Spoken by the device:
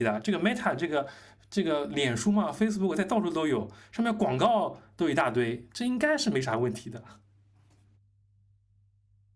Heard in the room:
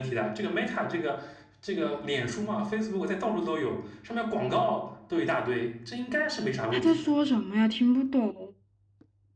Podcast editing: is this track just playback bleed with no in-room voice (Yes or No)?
No